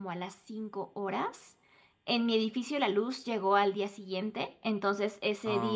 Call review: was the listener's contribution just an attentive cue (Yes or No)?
Yes